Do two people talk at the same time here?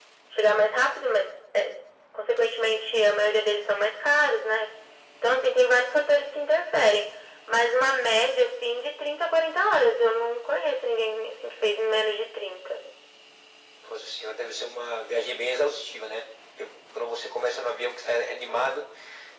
No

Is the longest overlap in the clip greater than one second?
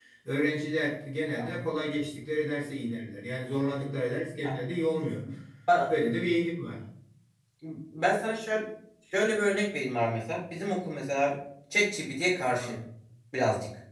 No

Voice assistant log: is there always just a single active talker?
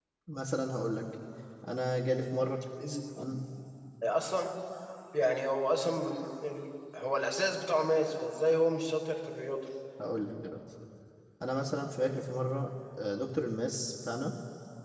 Yes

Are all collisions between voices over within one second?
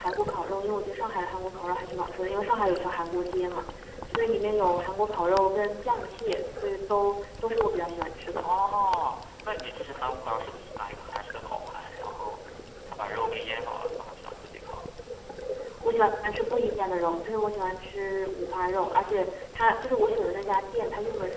Yes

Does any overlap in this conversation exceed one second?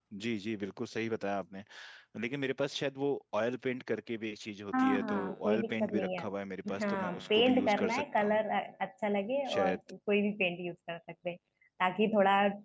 Yes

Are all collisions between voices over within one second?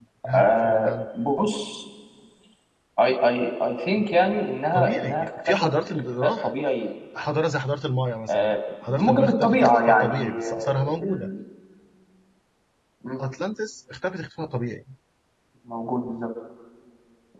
No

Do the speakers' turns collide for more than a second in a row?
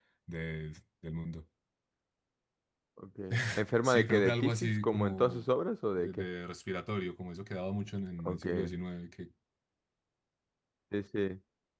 Yes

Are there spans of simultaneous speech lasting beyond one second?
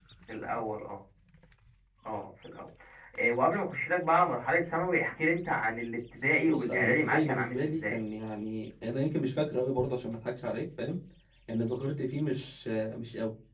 Yes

